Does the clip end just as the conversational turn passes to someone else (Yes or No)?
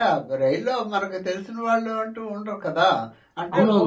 Yes